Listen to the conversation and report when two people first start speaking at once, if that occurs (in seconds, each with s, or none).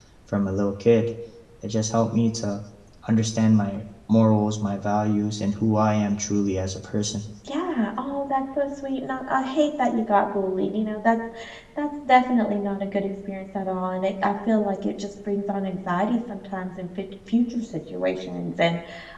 none